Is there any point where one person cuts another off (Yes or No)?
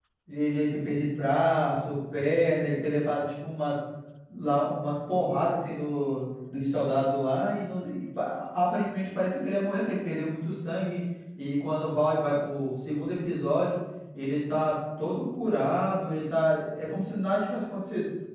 No